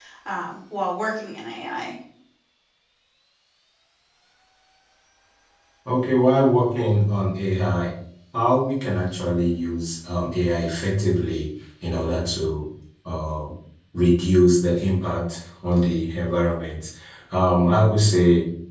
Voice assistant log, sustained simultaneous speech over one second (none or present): none